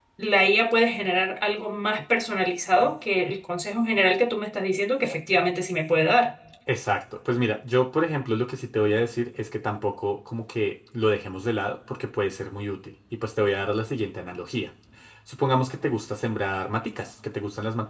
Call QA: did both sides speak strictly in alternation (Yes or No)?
Yes